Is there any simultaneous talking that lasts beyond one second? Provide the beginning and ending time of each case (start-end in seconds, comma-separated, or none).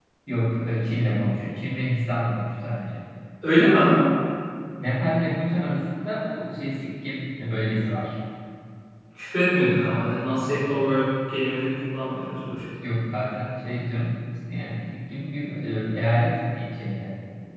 none